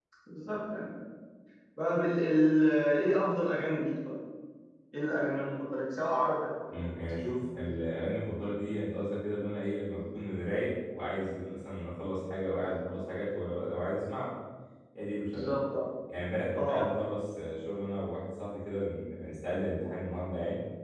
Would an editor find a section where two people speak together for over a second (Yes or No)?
No